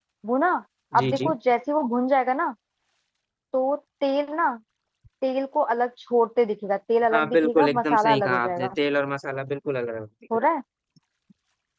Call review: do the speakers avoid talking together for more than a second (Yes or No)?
No